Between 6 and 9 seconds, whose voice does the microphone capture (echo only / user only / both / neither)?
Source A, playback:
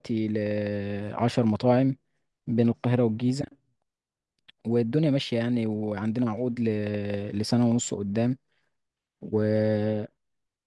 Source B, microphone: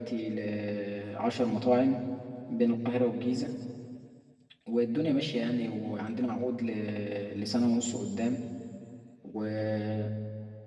echo only